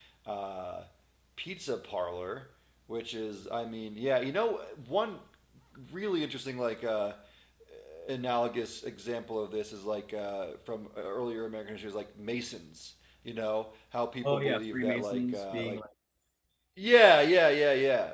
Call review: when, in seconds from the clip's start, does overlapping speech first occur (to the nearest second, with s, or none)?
14 s